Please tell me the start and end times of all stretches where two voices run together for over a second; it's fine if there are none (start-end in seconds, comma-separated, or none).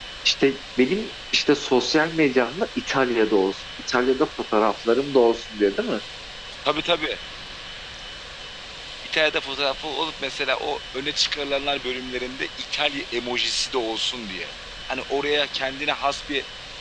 none